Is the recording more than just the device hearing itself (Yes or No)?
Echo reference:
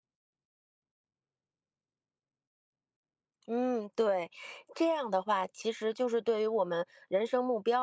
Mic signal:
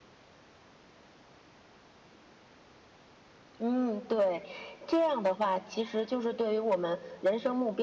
No